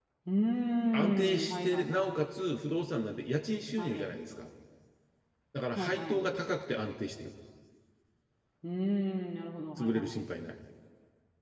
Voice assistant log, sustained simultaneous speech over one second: present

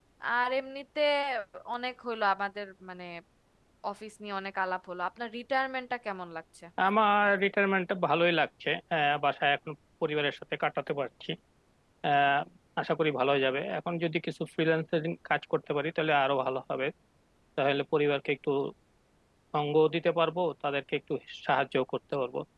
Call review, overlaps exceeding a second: none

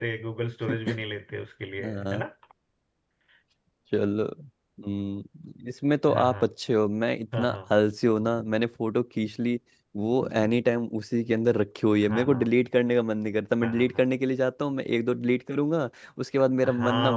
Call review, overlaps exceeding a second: none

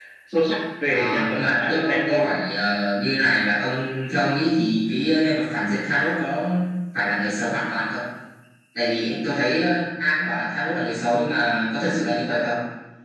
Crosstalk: present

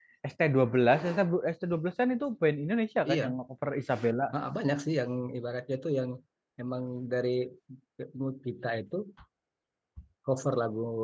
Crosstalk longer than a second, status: none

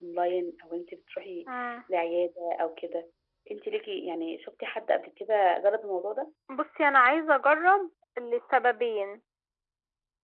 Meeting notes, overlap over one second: none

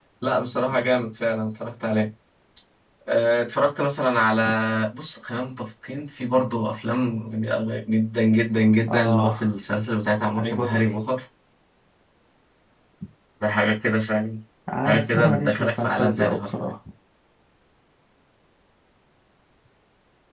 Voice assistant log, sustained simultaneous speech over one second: present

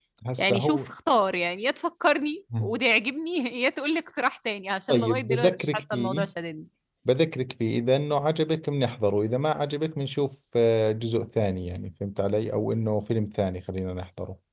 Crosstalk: present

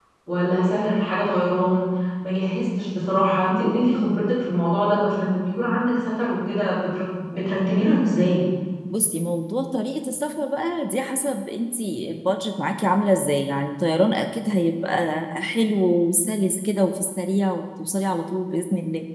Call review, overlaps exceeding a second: none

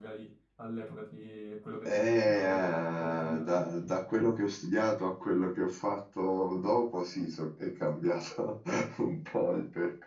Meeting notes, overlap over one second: present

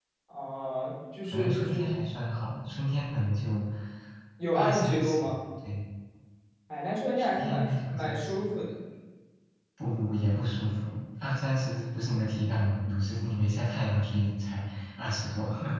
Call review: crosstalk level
present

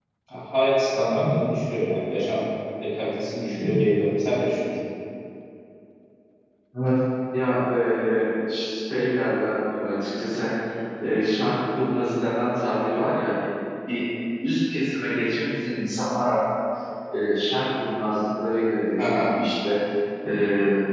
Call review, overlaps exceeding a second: none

